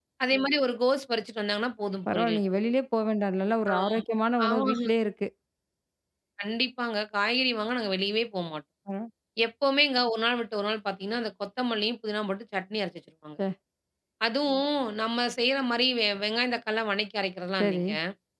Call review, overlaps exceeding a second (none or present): none